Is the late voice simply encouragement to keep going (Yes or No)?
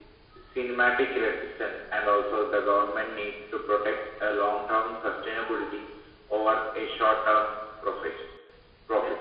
No